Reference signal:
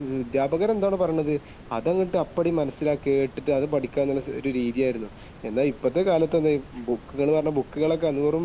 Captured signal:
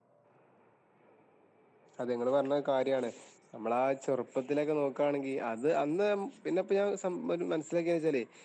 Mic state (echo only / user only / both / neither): user only